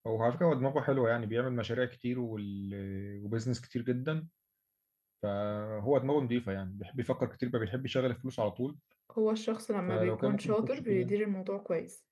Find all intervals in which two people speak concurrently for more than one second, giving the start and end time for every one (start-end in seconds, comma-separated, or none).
9.9-11.2